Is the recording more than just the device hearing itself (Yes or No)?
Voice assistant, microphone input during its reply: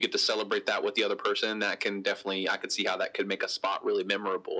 No